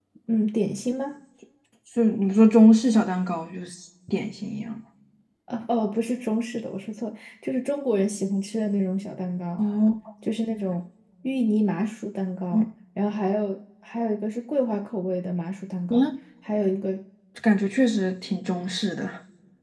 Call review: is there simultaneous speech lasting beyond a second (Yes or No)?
No